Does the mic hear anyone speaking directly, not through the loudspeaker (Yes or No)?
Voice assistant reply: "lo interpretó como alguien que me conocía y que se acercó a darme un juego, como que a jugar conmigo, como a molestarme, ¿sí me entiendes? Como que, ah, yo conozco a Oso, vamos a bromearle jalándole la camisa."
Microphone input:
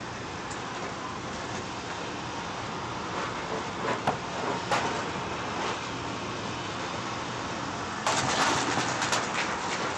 No